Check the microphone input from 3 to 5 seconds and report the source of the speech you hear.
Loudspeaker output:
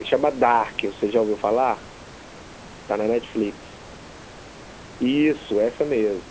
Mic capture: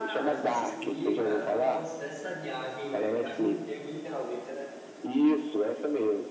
both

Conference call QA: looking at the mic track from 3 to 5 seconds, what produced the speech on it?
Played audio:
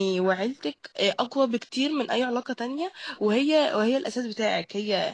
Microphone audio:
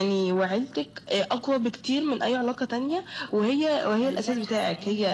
both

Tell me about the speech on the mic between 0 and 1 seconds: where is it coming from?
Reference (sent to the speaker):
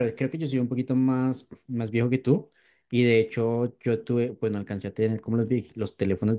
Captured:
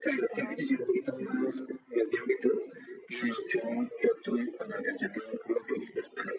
both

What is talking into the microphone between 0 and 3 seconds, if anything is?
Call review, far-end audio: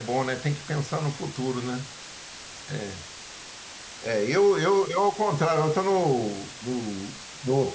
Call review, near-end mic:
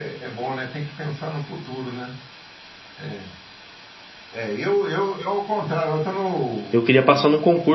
echo only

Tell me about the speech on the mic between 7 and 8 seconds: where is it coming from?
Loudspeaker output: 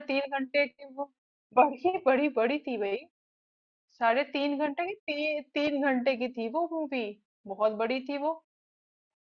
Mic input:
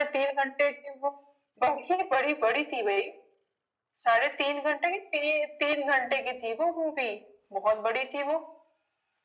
echo only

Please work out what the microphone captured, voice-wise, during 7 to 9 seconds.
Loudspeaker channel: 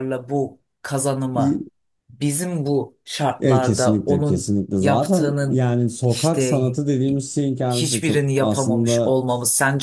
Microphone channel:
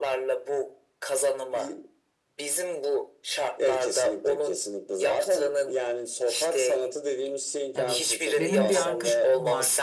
both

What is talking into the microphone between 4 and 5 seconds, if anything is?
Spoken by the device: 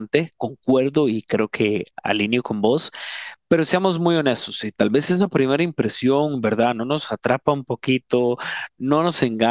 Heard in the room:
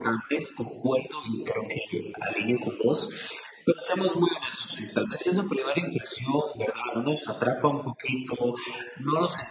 echo only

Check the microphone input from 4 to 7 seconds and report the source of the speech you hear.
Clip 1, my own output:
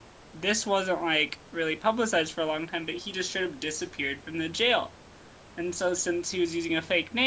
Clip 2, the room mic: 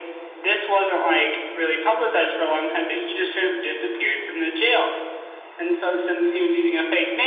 echo only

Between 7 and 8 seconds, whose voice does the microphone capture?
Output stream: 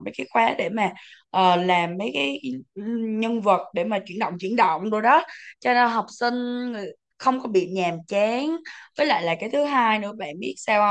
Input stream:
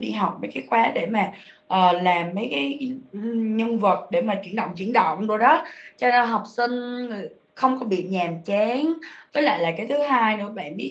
echo only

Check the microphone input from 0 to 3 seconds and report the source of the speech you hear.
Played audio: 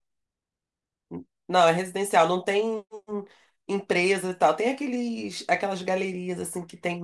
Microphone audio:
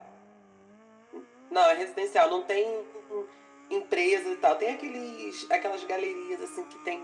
echo only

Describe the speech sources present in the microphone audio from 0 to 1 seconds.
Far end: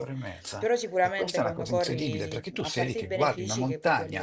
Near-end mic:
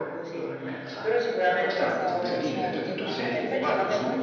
echo only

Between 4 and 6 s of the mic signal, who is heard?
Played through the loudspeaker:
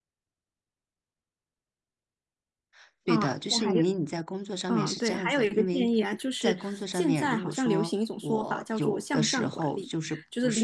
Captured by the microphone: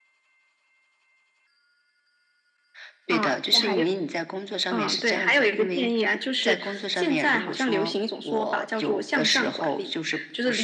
echo only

